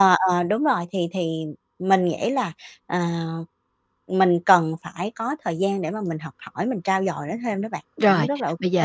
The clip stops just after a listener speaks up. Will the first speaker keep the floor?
No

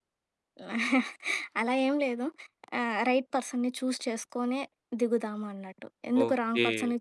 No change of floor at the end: No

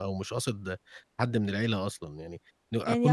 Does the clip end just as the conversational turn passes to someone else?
Yes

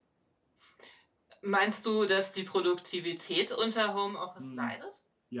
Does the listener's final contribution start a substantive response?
Yes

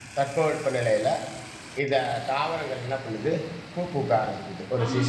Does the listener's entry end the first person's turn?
Yes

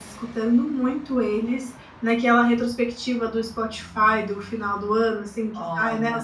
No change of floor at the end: Yes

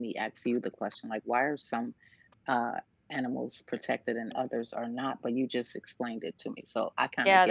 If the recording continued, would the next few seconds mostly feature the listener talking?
Yes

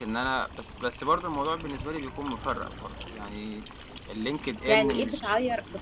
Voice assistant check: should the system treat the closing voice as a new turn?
Yes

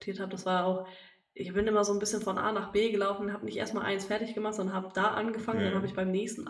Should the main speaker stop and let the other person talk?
No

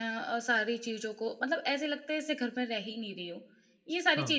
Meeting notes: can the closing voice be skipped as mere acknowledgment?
Yes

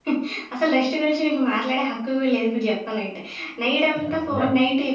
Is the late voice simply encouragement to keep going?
Yes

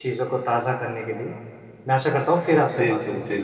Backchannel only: No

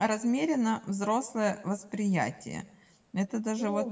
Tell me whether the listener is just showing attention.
Yes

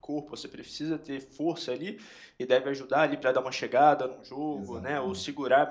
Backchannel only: Yes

